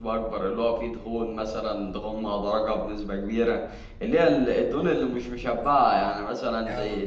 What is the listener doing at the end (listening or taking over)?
listening